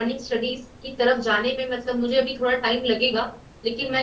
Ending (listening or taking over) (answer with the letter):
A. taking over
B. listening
B